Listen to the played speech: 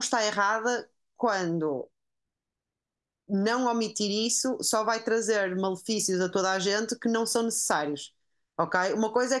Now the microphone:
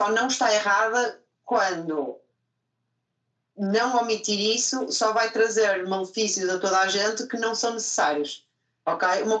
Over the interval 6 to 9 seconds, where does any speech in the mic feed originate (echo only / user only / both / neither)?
echo only